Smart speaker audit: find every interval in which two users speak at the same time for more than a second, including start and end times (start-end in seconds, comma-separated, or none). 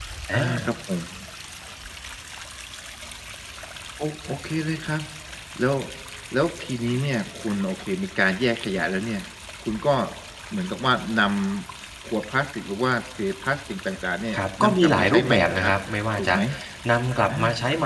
14.4-15.7